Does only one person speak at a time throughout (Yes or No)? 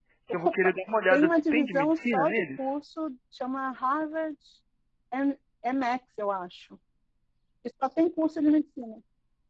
No